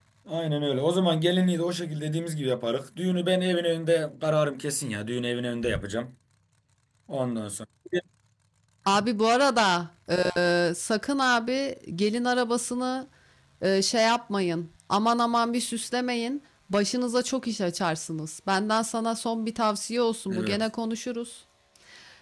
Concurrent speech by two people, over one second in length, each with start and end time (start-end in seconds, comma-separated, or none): none